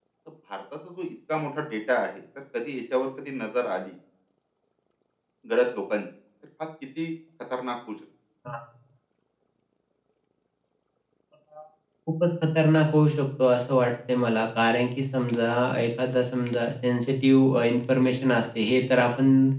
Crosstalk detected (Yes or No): No